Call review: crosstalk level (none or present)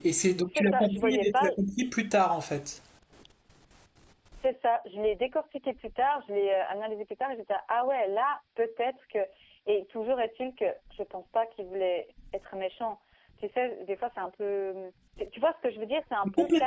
present